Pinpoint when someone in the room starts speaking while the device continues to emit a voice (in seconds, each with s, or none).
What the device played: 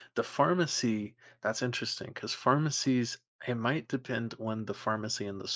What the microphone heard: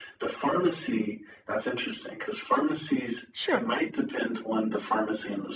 3.3 s